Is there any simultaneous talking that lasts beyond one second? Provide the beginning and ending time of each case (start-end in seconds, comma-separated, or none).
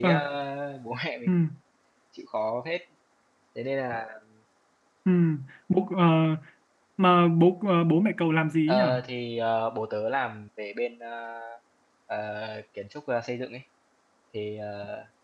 none